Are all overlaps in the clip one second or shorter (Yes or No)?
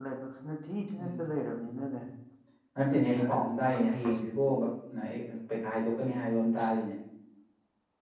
No